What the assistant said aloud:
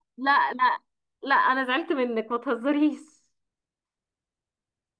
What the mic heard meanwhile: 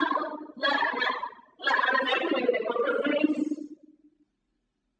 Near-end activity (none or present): none